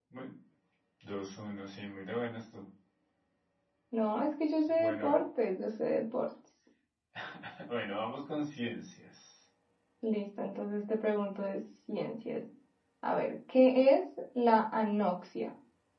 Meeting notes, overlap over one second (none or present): none